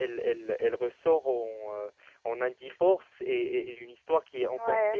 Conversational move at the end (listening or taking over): taking over